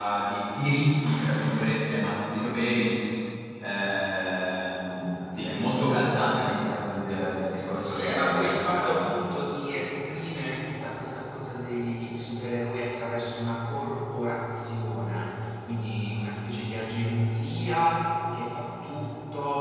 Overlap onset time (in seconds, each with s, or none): 7.8 s